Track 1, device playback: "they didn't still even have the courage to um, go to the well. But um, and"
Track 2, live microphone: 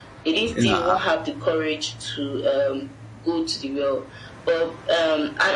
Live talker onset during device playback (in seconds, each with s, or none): 0.6 s